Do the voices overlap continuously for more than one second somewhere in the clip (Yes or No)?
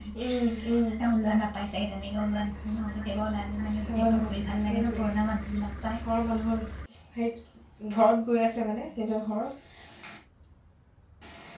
No